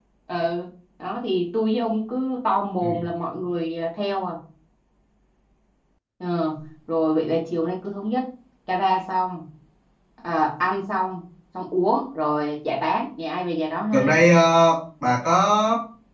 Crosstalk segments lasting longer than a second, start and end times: none

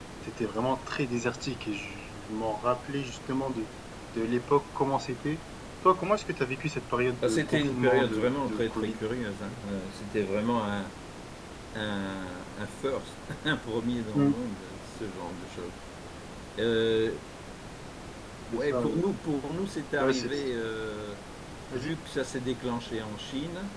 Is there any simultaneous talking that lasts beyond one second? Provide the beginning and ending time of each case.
7.2-9.0

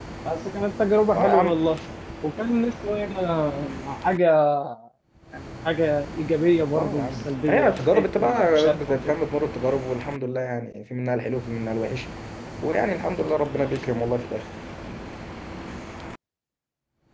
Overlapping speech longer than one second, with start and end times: 6.7-9.1

